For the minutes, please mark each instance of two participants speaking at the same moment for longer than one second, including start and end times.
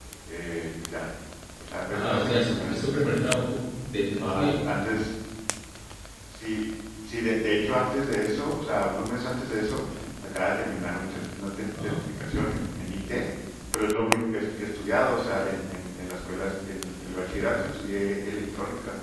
1.9-3.6

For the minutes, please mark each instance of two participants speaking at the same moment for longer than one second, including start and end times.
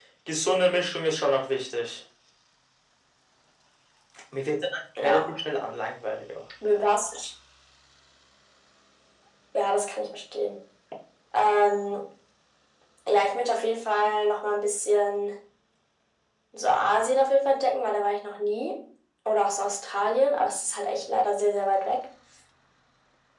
none

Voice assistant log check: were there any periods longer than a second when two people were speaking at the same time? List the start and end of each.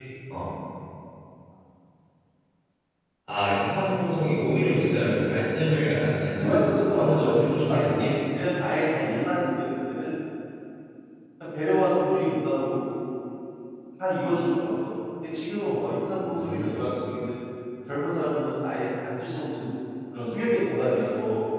6.4-8.2

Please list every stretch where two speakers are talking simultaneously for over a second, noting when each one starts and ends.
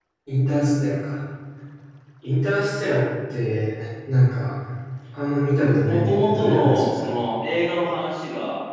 5.8-7.1

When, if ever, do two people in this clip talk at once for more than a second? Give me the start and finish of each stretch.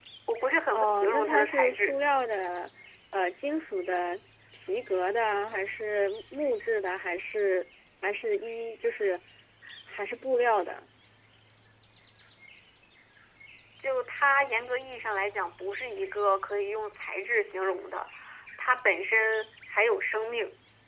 0.7-1.9

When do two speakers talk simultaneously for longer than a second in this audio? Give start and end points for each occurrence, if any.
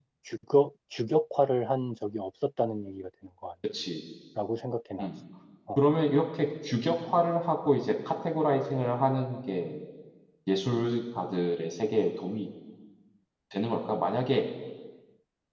none

